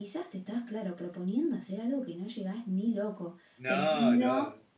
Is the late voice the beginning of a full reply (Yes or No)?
No